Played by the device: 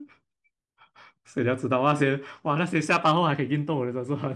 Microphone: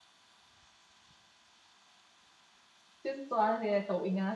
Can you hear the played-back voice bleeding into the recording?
No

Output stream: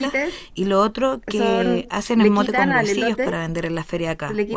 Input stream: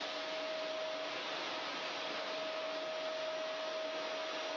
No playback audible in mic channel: Yes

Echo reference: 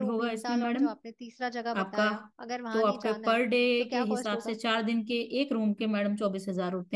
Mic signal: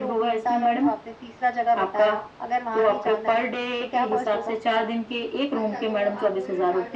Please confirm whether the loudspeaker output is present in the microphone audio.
Yes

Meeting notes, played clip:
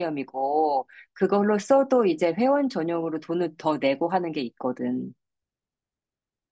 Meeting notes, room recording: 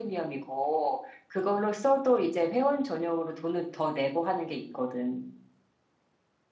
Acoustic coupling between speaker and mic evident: Yes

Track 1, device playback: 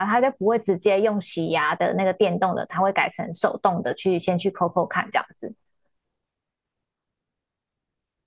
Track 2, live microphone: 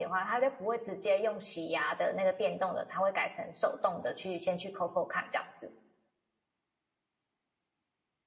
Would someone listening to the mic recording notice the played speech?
Yes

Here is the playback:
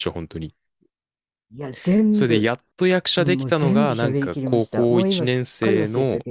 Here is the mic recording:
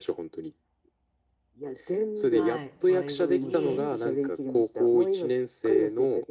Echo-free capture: No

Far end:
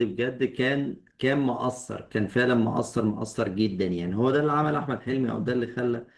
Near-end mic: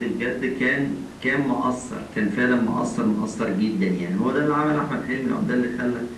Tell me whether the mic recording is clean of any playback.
No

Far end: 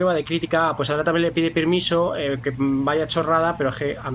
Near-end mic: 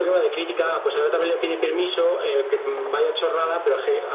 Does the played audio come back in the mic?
Yes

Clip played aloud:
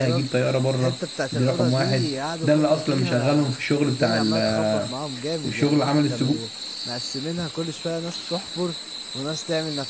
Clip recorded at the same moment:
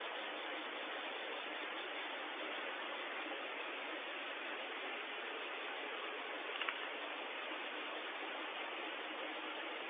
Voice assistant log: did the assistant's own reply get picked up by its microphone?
No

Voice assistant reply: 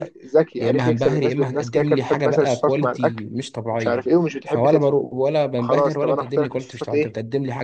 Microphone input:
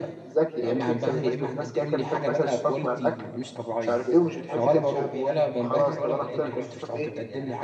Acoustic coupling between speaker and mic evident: Yes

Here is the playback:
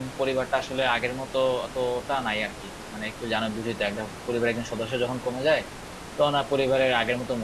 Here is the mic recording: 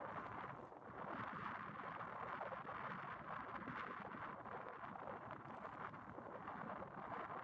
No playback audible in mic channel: Yes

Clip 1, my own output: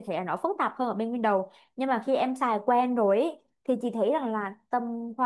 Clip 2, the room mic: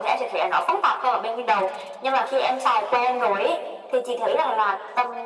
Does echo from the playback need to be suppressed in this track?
Yes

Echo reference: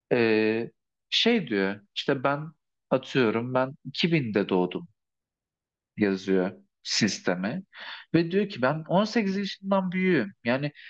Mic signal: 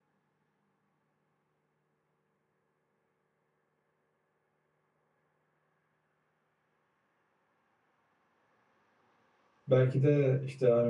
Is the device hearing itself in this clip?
No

